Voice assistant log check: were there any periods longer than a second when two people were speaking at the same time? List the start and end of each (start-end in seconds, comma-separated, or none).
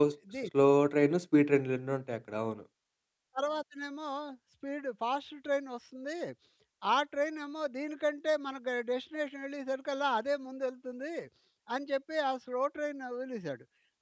none